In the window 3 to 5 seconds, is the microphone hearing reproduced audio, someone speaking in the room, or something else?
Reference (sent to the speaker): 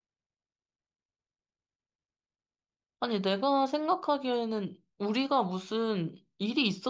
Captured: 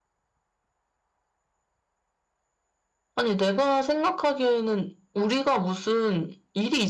echo only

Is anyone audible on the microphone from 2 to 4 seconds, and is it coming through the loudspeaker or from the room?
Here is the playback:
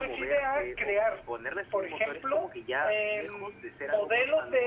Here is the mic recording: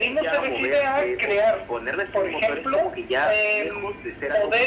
echo only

